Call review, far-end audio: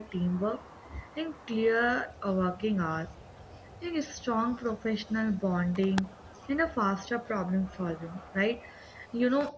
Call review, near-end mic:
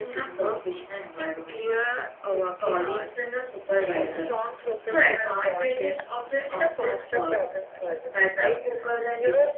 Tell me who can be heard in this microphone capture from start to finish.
both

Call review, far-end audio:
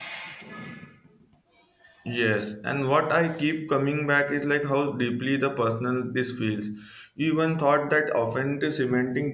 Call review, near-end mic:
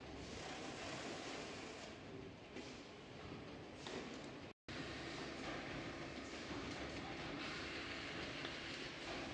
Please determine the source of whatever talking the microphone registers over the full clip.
neither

